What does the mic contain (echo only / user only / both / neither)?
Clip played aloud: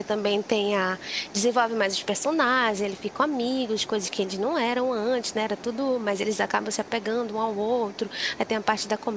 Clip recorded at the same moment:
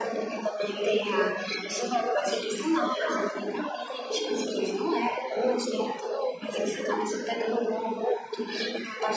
echo only